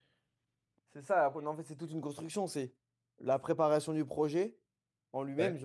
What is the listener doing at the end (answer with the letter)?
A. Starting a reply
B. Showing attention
B